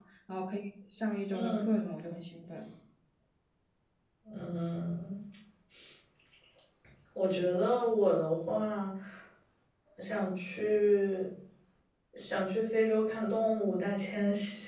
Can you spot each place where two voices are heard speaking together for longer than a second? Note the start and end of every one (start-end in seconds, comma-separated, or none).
none